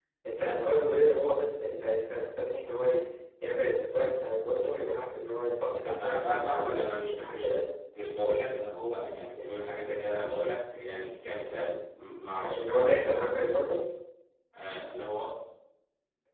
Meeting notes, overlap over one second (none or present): present